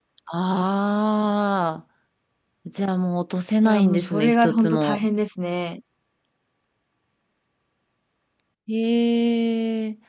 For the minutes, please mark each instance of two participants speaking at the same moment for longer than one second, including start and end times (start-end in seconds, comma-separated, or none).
3.6-5.1